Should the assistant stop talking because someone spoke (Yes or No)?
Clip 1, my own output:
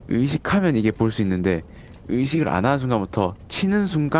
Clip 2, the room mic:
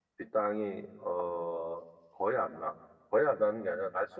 Yes